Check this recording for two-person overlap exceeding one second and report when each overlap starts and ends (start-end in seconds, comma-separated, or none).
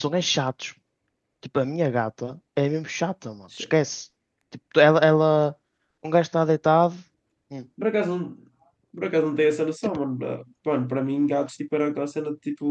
none